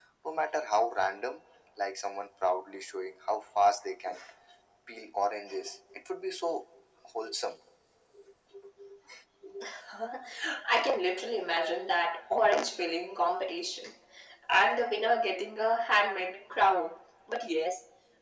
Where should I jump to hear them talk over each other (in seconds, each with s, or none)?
none